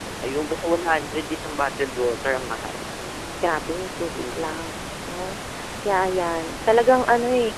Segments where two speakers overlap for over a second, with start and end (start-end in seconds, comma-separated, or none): none